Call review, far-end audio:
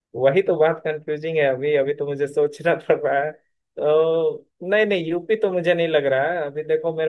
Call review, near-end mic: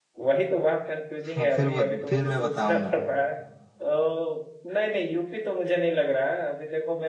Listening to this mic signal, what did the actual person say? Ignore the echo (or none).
हाँ, फिर बत, फिर मैं बताऊंगा